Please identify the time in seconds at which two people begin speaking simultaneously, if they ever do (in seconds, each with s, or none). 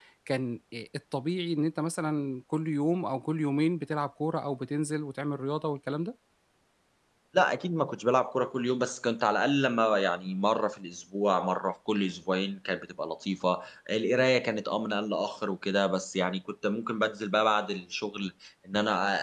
none